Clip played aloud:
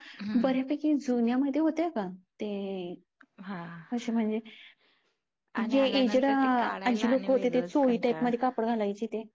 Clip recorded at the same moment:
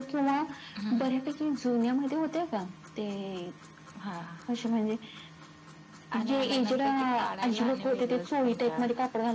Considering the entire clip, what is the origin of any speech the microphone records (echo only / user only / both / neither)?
echo only